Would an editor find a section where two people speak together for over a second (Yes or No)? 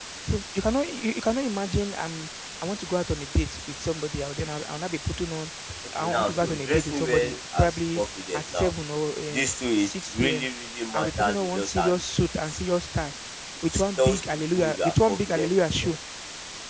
Yes